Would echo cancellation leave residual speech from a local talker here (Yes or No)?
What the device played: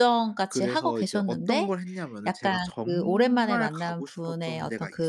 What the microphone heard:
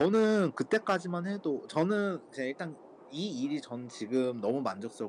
Yes